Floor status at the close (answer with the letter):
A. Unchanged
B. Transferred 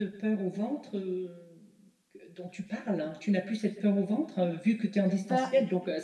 A